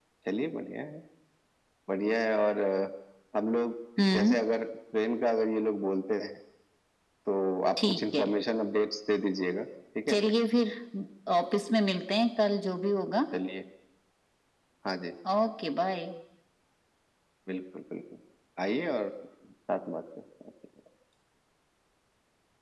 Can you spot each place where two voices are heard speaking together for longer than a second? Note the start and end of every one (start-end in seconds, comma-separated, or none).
none